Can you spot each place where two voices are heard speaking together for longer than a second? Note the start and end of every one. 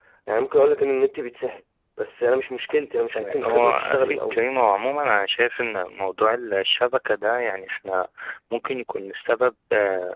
3.1-4.4

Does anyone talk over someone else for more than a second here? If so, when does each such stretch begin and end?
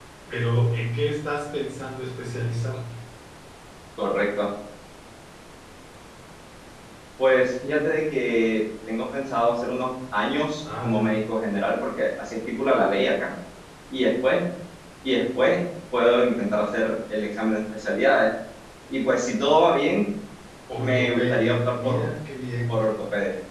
20.8-22.1

